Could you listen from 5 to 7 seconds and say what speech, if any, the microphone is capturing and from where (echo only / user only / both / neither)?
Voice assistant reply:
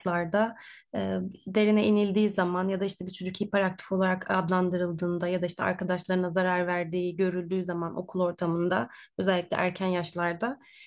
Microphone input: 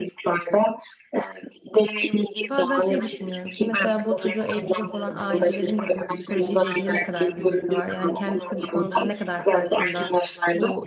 both